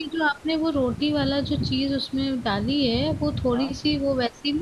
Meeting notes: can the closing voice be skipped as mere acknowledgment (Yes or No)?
Yes